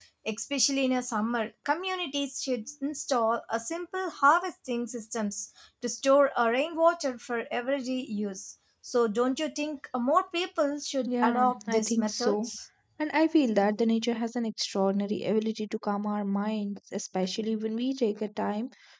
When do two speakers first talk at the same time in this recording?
11.1 s

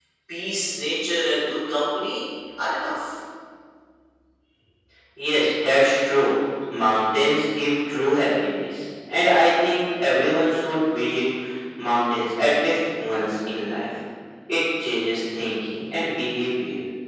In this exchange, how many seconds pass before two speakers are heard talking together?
none

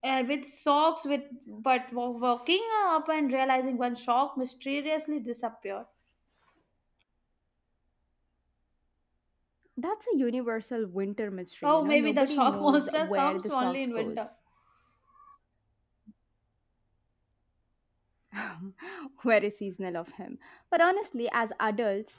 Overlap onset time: 11.6 s

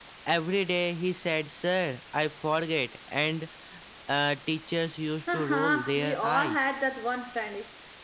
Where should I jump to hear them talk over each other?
5.3 s

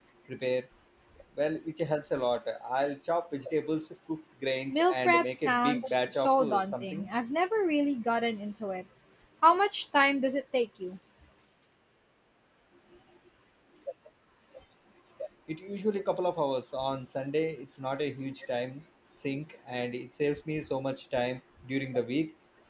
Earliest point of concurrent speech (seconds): 4.7 s

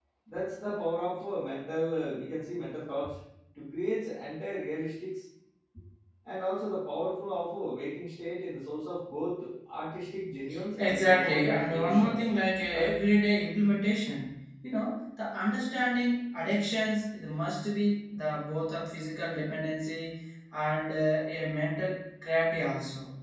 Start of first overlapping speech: 10.8 s

